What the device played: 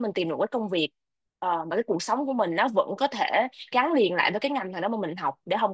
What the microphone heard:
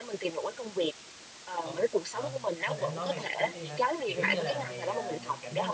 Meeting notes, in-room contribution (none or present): present